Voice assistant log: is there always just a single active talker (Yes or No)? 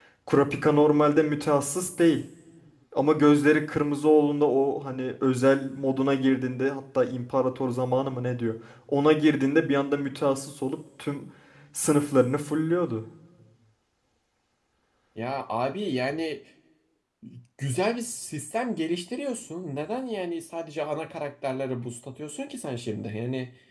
Yes